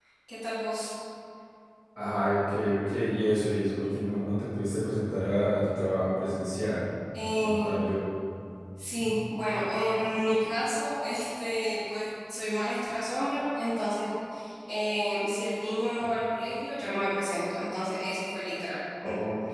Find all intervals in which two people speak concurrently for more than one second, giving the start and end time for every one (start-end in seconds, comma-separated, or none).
none